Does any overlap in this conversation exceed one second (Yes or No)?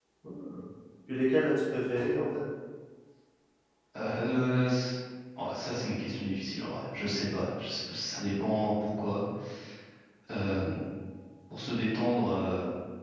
No